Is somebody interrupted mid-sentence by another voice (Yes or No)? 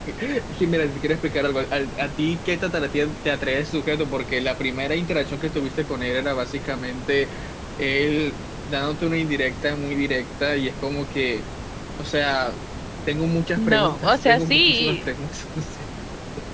Yes